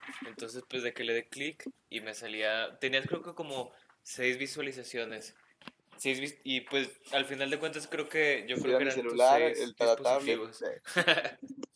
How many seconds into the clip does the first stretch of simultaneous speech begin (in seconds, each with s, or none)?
8.6 s